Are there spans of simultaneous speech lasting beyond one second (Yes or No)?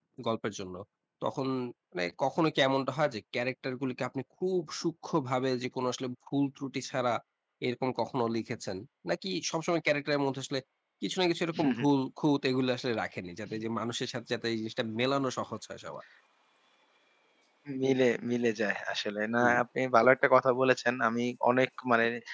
No